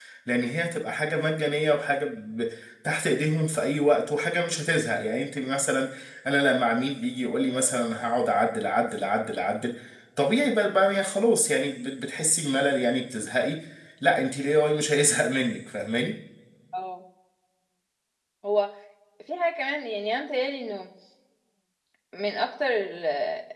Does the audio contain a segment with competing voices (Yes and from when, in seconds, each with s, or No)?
No